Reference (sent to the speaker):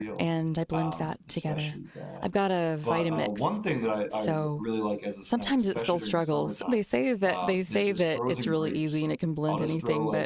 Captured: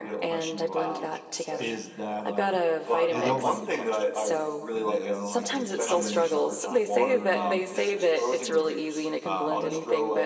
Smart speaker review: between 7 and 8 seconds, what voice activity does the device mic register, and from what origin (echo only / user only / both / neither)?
both